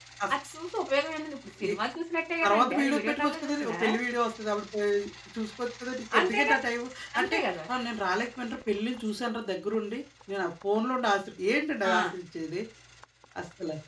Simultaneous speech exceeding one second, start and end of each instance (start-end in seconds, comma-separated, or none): 2.4-3.7